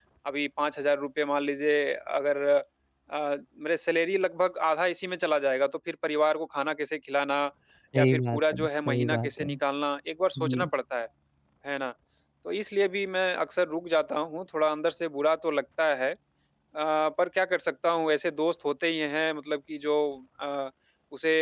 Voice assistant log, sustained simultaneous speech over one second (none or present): present